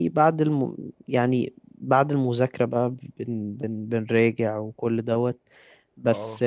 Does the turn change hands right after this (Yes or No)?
No